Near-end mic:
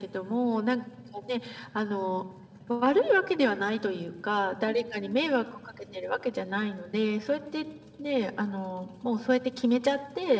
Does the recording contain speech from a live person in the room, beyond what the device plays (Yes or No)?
No